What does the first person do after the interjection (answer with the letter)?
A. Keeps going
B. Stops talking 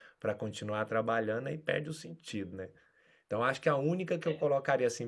A